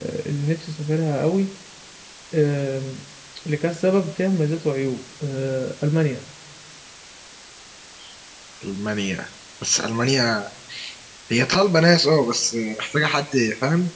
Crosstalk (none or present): none